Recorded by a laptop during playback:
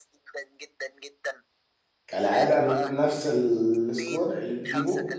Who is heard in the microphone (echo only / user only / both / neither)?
both